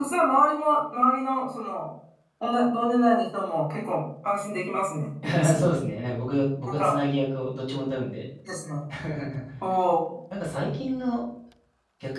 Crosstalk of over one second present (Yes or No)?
No